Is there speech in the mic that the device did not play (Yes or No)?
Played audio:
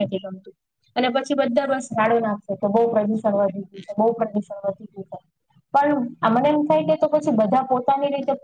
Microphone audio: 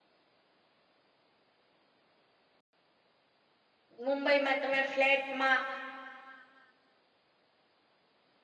Yes